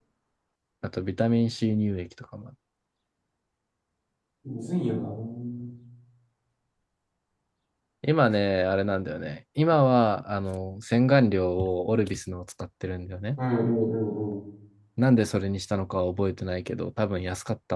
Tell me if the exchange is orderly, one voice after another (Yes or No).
Yes